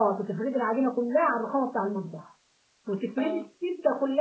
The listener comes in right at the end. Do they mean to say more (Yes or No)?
No